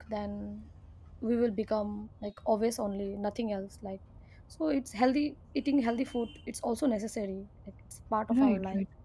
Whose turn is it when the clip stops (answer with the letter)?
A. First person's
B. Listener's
B